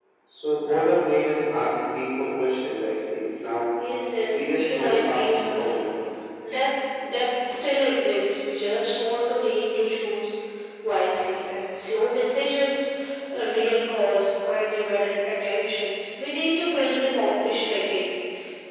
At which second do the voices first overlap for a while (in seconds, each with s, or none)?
4.3 s